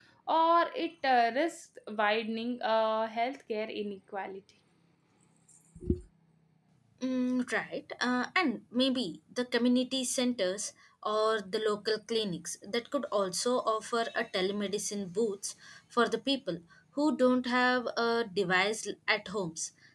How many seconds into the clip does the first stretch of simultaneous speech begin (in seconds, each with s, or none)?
none